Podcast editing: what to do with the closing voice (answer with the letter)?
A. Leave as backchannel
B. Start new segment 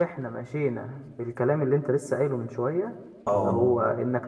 A